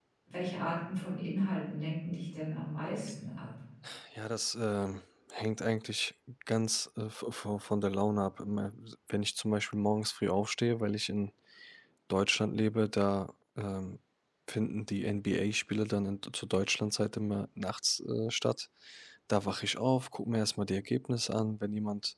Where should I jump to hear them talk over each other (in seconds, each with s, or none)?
none